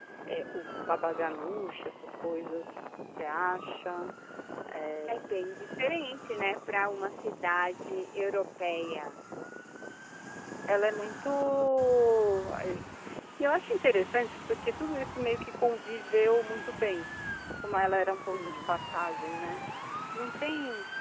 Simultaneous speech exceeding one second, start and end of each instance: none

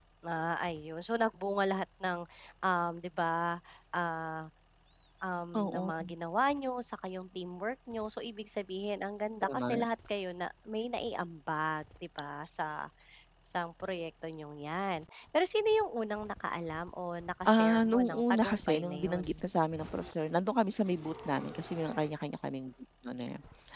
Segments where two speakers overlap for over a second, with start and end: 17.4-19.4

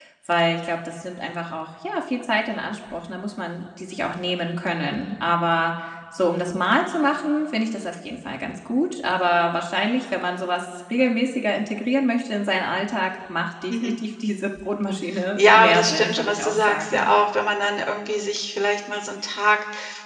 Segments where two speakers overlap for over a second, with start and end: 15.4-17.1

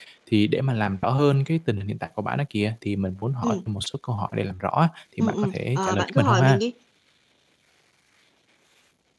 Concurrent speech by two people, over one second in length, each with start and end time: 5.2-6.6

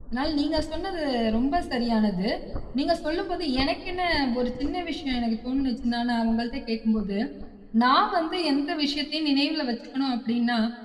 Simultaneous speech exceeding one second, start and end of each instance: none

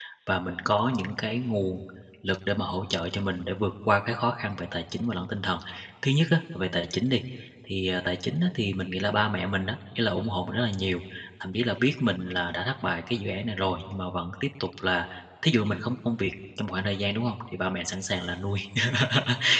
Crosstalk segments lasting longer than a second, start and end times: none

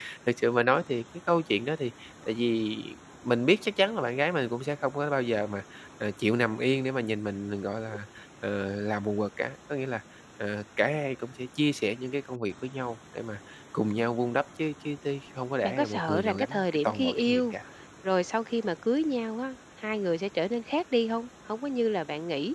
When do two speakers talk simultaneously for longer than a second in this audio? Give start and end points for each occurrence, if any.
15.6-17.5

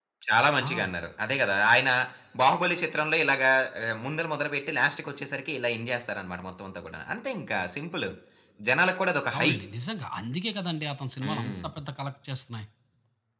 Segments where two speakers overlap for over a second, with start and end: none

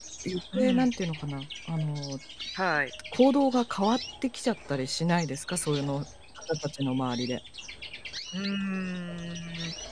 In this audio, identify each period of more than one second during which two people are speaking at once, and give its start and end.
none

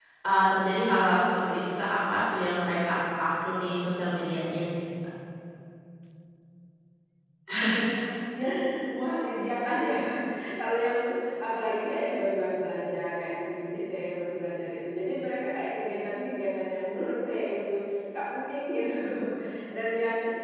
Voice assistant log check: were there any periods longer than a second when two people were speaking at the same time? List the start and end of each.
none

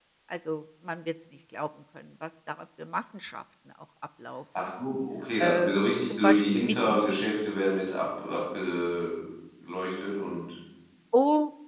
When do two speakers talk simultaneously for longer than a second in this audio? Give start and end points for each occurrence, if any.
5.4-7.0

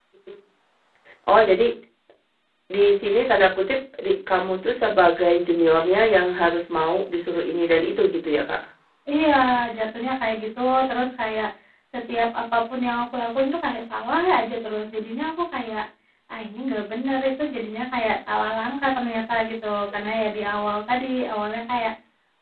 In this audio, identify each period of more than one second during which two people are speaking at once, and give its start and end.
none

